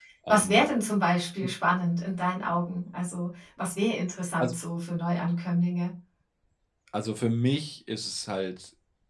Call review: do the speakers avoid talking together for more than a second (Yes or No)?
Yes